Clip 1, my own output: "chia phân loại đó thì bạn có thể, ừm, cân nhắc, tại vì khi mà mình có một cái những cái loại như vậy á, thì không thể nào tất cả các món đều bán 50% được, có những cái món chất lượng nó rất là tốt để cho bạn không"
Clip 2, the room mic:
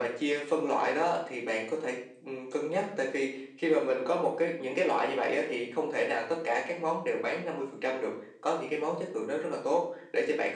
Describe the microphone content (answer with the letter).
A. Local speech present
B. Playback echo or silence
B